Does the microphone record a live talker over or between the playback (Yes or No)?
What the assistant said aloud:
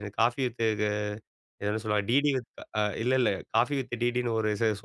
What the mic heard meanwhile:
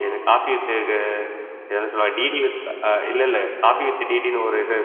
Yes